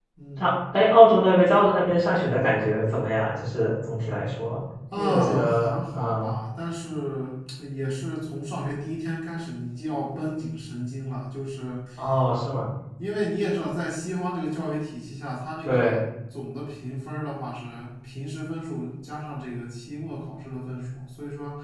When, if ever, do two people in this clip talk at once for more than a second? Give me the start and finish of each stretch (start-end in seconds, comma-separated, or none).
5.0-6.3